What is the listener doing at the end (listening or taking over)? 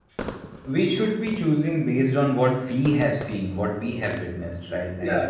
taking over